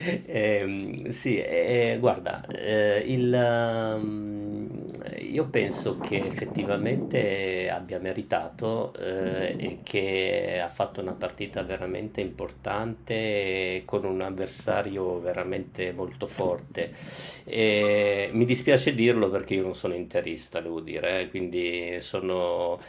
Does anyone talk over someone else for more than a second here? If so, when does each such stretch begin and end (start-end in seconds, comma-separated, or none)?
none